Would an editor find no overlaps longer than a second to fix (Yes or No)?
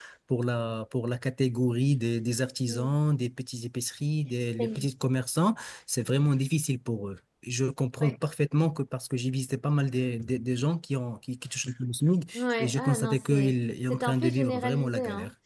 No